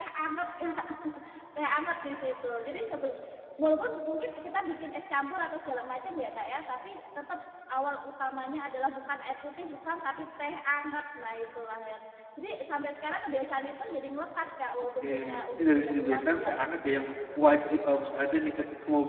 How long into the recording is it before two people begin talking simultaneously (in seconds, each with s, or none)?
14.8 s